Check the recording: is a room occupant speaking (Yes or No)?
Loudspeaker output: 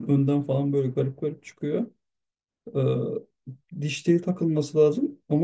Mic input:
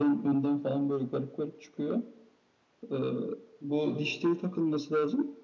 Yes